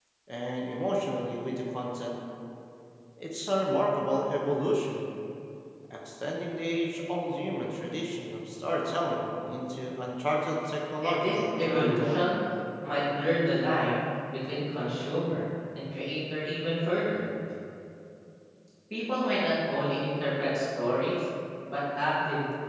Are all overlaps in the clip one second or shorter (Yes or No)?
No